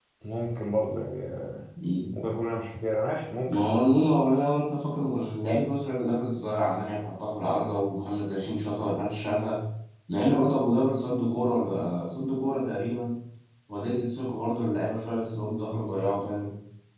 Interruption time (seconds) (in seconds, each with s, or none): none